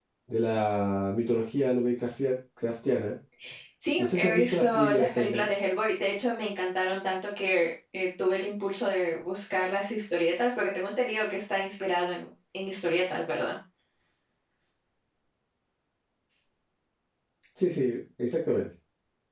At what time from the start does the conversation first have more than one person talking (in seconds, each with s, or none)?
4.0 s